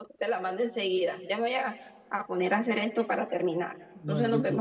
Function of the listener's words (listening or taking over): taking over